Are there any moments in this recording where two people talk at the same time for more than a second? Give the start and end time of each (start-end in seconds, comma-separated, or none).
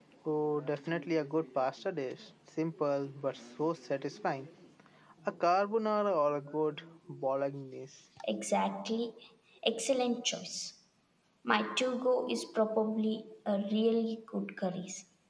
none